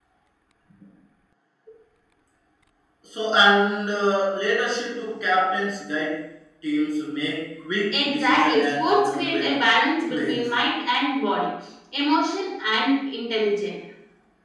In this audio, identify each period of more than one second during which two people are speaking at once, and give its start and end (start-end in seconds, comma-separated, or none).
7.9-9.5